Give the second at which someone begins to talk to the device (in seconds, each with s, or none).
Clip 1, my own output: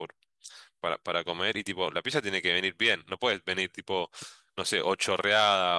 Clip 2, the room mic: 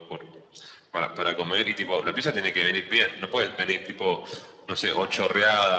none